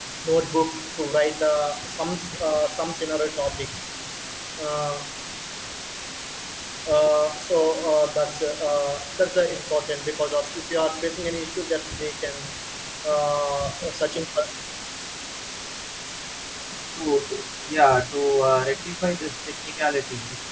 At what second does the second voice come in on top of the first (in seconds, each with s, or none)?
none